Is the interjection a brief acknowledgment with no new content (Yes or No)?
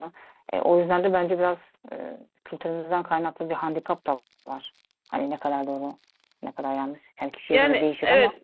No